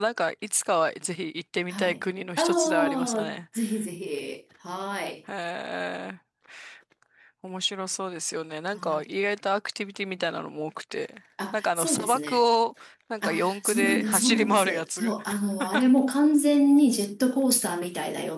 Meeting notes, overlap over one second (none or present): present